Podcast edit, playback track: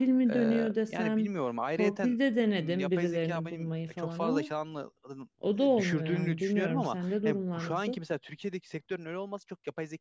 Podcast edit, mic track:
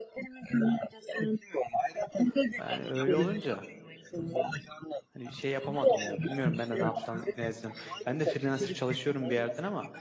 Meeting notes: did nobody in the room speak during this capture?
No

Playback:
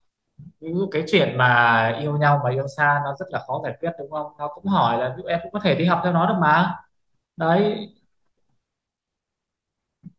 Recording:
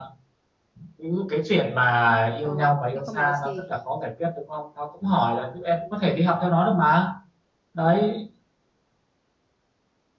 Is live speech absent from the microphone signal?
No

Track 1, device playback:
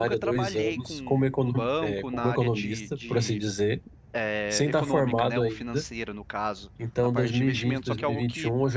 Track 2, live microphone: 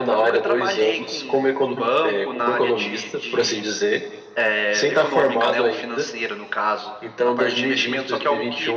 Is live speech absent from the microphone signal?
Yes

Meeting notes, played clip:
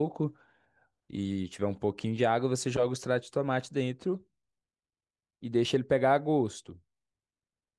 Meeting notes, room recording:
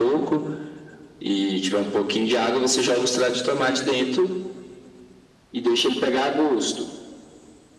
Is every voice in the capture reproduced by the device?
Yes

